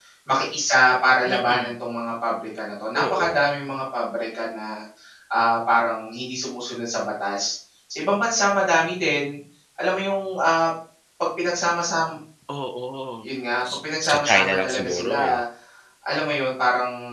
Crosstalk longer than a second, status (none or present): present